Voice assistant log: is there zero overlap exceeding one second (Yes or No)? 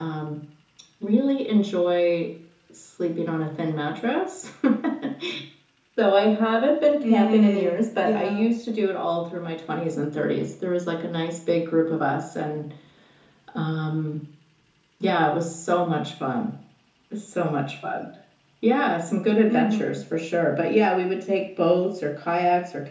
No